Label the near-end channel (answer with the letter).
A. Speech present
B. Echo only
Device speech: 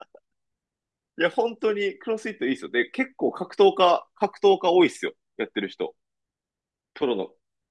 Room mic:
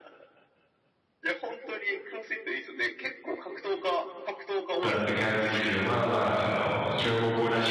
A